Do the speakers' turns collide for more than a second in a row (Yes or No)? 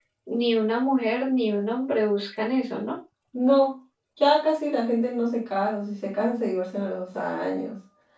No